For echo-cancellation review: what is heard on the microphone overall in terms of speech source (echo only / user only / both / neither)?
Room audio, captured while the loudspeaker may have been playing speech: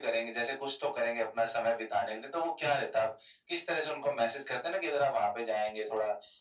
echo only